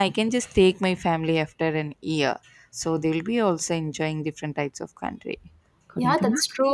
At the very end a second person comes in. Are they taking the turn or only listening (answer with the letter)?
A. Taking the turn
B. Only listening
A